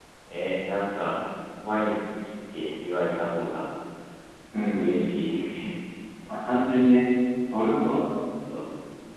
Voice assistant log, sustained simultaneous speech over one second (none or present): none